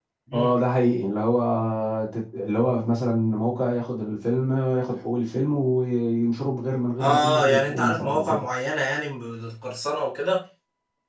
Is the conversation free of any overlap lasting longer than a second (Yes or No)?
No